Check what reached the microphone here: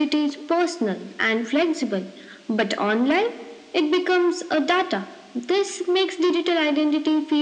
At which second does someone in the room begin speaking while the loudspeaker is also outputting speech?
none

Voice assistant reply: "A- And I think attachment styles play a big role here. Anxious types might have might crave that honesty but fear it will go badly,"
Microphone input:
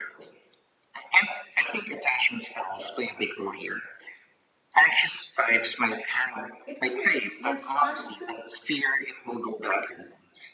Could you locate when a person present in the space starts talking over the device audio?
7 s

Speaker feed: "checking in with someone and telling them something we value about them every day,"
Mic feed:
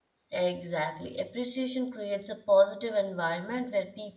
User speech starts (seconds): 0 s

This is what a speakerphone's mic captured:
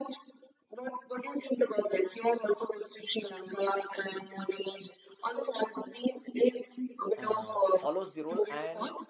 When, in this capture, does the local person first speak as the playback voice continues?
7 s

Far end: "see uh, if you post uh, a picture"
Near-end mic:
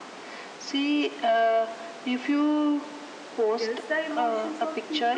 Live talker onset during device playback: 4 s

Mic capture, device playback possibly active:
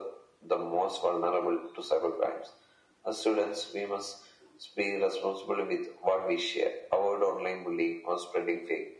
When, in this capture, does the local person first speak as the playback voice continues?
none

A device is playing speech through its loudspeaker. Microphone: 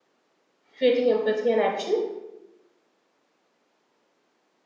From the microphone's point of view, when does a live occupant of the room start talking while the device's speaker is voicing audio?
1 s

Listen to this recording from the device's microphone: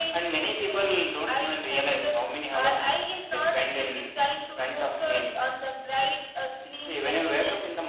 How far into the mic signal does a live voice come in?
none

